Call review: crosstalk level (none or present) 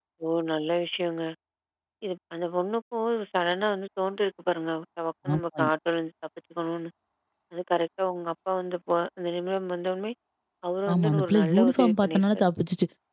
present